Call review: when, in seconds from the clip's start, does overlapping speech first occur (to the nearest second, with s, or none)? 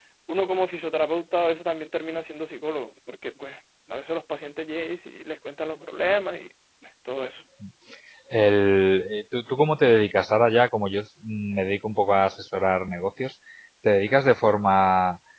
none